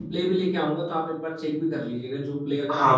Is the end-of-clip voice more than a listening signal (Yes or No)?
Yes